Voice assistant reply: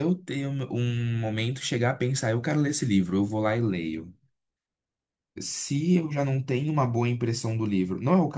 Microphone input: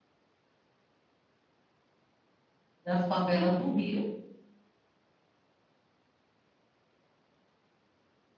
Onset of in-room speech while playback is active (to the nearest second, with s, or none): 3 s